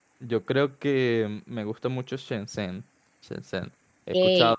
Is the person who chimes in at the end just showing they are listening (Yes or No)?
Yes